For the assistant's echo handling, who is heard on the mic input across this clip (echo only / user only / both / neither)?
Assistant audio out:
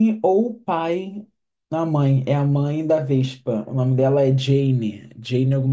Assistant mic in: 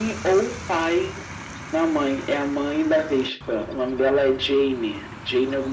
echo only